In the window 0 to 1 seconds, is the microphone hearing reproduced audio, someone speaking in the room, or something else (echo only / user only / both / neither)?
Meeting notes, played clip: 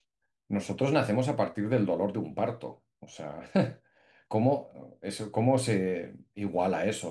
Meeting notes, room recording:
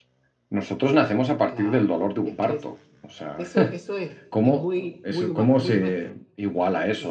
echo only